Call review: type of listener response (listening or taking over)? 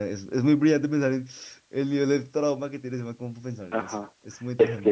taking over